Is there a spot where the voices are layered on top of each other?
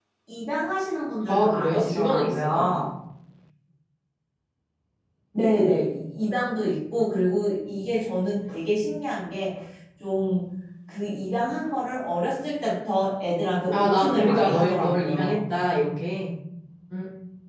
Yes, from 1.3 s

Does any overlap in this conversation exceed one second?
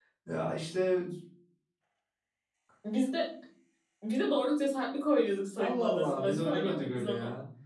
Yes, from 5.6 s

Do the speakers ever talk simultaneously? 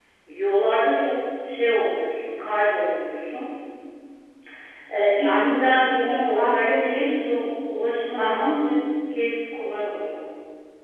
Yes, from 5.2 s

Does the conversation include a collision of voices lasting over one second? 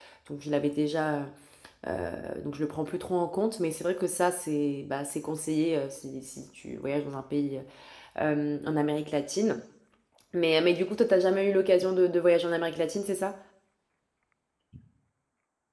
No

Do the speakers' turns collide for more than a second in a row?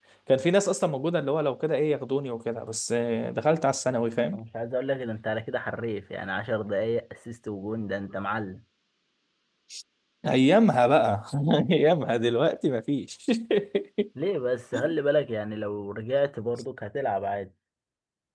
No

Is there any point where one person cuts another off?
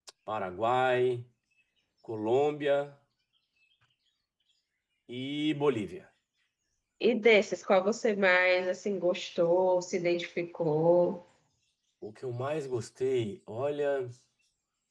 No

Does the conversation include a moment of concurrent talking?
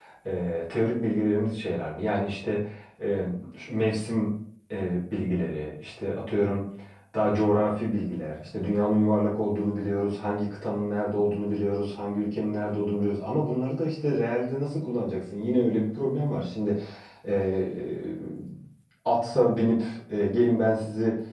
No

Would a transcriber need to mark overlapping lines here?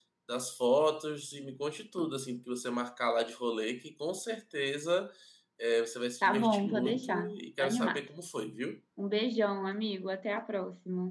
Yes, from 6.2 s

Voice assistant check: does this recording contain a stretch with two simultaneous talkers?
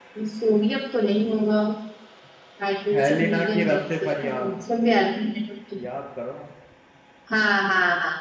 Yes, from 2.9 s

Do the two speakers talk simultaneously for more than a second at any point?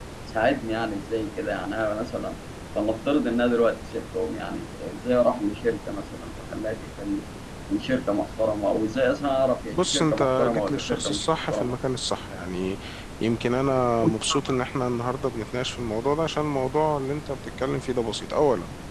Yes, from 9.7 s

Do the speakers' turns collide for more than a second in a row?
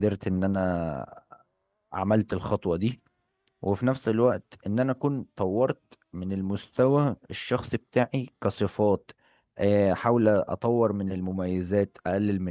No

